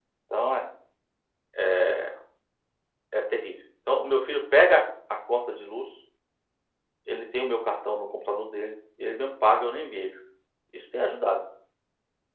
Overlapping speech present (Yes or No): No